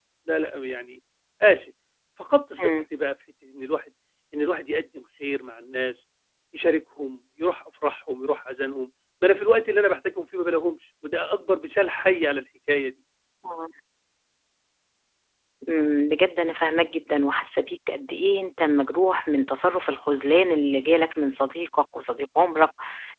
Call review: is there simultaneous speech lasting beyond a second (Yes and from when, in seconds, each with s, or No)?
No